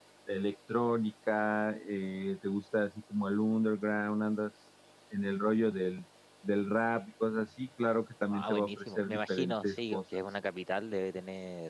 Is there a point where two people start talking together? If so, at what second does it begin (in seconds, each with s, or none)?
8.3 s